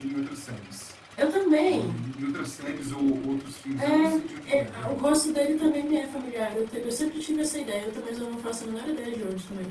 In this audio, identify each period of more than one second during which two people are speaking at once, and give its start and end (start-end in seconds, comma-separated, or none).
3.8-5.0